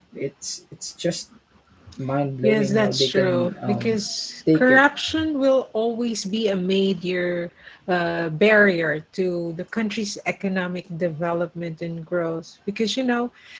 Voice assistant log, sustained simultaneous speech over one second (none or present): present